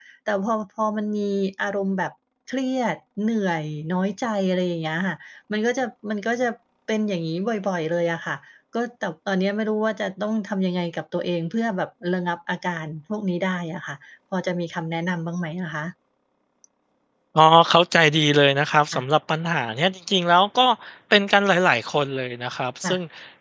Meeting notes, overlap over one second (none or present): none